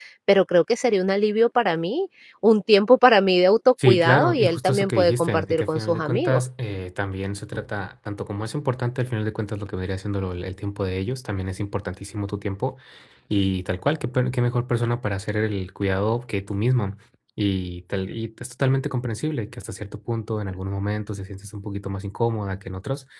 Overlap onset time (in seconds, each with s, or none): 3.8 s